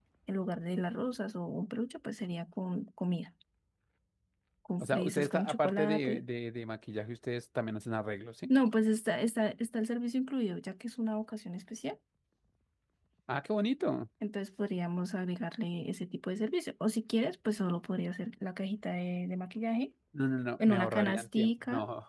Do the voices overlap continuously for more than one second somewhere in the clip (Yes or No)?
Yes